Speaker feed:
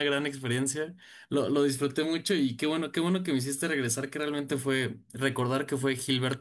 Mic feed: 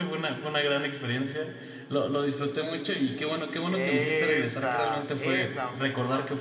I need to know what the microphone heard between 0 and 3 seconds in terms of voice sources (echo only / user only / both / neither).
echo only